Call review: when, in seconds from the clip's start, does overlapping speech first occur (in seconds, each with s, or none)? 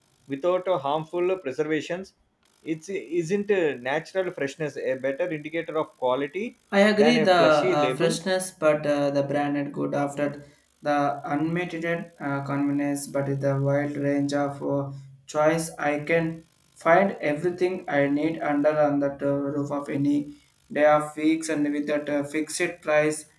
6.7 s